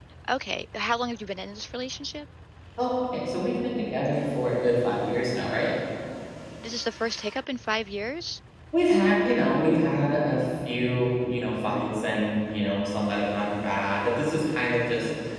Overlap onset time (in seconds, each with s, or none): none